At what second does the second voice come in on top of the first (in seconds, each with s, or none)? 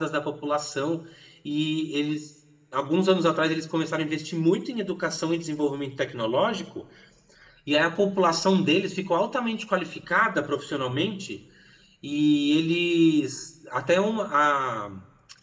none